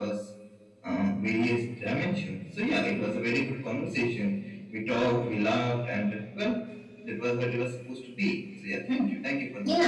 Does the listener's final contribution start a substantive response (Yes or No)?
Yes